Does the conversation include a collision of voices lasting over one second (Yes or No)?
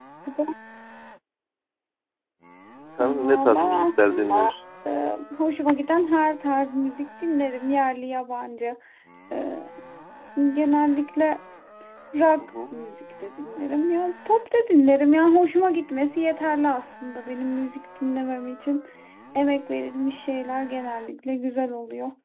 Yes